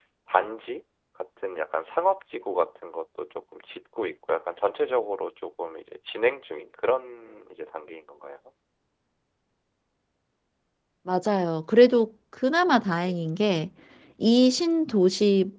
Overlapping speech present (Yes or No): No